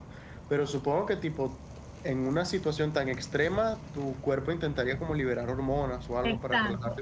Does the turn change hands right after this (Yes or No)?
Yes